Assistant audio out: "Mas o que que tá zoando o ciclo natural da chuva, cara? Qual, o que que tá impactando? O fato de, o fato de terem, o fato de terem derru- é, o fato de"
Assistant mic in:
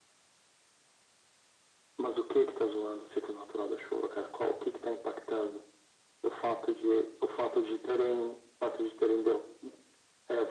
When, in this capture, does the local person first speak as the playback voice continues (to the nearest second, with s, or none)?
none